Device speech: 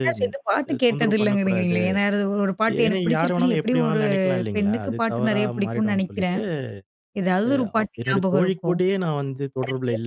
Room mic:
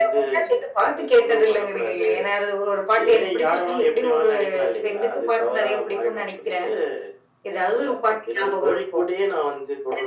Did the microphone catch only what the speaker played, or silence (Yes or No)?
Yes